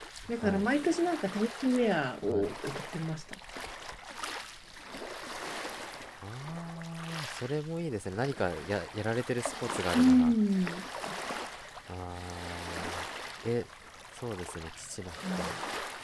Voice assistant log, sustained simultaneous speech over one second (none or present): none